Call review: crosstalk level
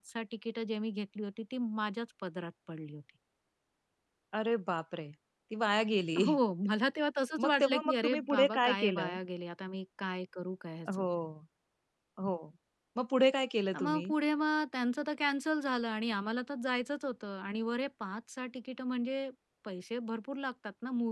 present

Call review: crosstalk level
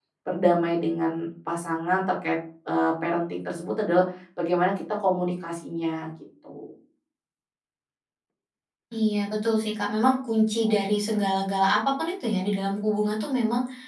none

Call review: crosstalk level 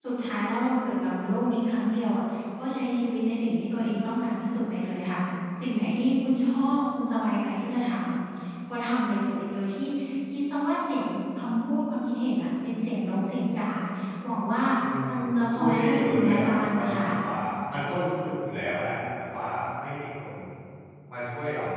present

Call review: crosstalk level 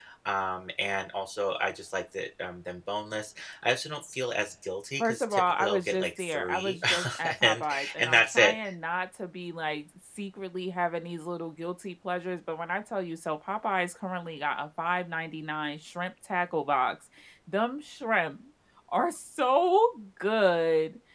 present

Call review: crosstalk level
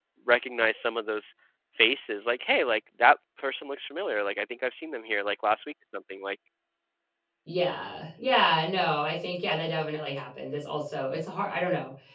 none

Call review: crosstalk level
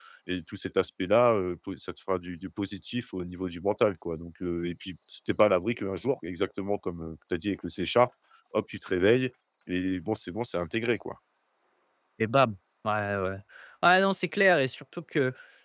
none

